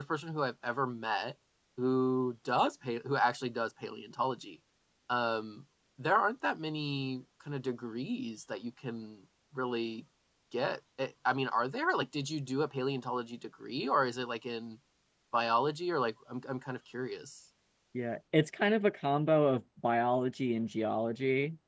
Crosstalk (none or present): none